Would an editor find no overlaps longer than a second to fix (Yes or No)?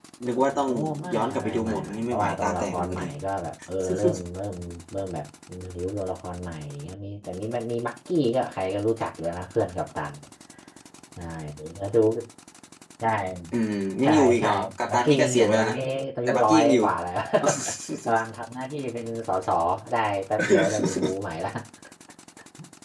No